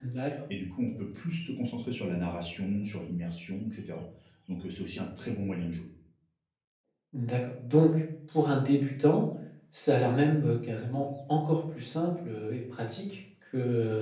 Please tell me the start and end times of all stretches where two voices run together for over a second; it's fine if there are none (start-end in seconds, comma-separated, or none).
none